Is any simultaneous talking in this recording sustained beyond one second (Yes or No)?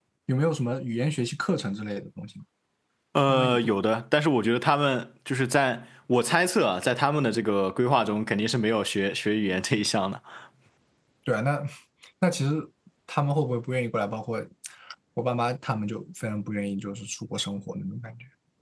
No